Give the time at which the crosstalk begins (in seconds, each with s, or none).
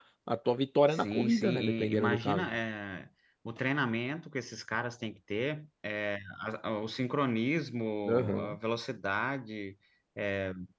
0.9 s